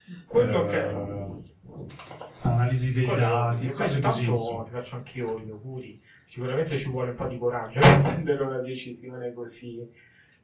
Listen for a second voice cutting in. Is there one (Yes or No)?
Yes